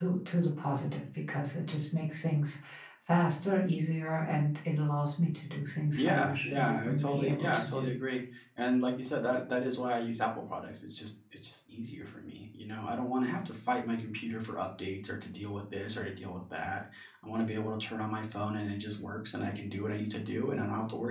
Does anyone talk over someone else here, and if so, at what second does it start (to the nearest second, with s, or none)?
6 s